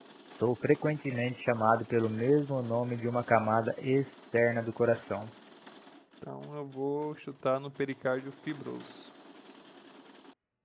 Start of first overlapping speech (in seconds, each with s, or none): none